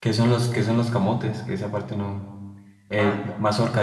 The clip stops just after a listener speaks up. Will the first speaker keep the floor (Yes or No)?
No